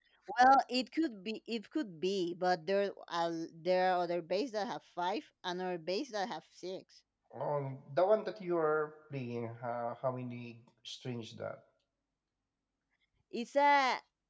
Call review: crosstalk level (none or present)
none